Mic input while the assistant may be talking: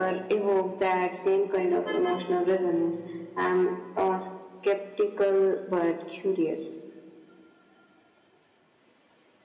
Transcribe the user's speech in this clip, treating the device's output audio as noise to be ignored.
none

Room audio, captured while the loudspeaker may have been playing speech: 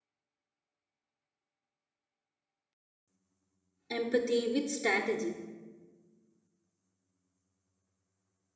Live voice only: empathy with strategy,

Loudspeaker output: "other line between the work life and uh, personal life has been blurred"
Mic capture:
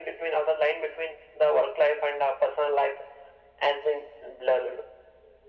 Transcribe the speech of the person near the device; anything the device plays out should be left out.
none

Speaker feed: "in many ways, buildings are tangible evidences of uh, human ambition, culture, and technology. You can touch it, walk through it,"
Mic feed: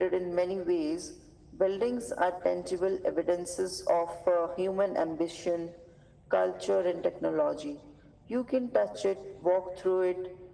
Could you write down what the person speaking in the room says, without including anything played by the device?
none

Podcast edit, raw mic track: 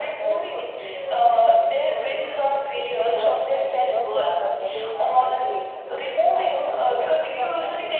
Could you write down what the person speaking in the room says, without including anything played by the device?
perfect narratives, narratives feel uh, curated,

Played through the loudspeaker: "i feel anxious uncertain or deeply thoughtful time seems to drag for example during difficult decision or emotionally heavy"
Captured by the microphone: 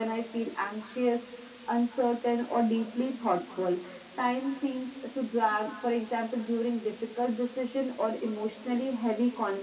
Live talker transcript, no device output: none

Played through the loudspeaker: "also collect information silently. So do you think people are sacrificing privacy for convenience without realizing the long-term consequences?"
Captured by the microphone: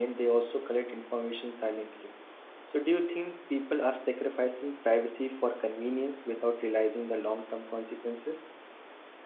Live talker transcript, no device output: none

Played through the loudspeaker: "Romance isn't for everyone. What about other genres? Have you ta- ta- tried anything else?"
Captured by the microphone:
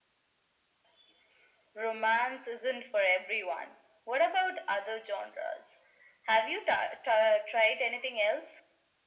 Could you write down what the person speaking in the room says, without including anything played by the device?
none

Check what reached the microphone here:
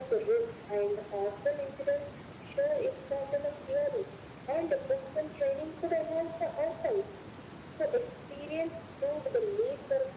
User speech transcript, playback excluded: none

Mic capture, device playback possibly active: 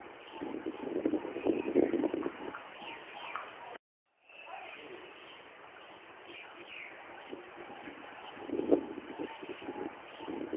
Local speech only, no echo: none

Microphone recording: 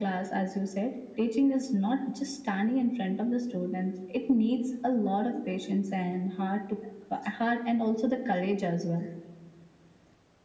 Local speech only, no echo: none

